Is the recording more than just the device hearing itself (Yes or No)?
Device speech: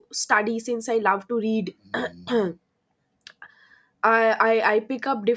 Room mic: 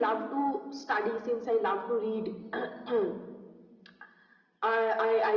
No